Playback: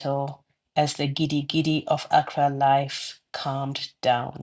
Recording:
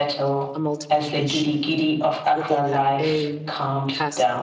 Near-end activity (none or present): present